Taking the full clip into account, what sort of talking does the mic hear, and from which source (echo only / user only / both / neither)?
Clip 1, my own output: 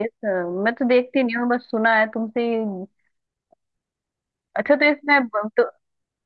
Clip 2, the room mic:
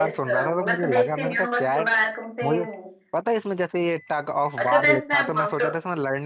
both